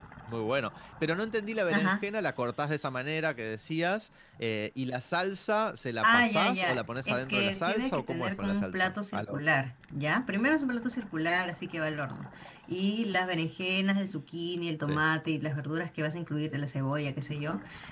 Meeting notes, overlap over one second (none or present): present